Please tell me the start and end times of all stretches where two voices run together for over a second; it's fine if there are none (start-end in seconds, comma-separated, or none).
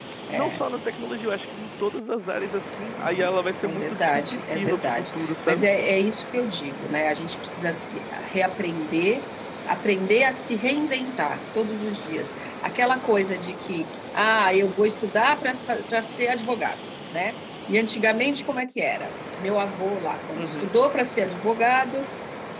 2.9-5.6